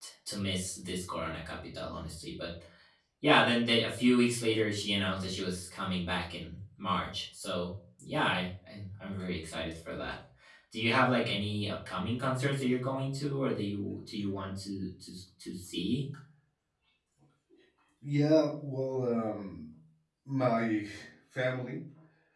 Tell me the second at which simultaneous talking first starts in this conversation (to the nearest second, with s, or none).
none